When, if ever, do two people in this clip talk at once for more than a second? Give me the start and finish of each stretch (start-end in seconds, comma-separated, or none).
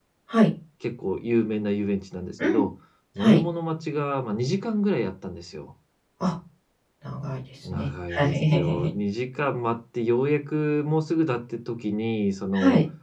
7.6-8.9